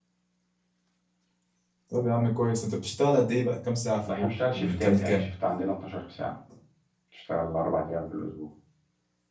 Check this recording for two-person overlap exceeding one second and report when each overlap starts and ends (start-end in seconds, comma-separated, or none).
4.0-5.3